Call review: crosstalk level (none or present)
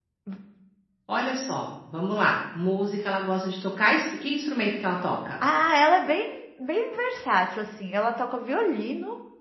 none